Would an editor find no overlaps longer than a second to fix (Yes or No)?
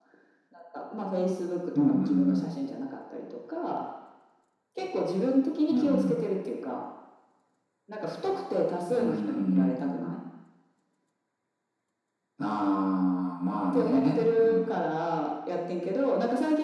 No